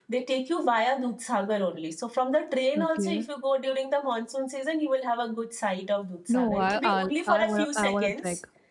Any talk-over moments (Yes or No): Yes